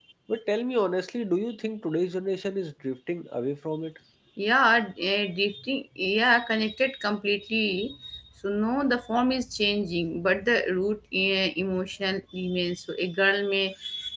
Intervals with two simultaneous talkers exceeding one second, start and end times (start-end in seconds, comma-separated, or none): none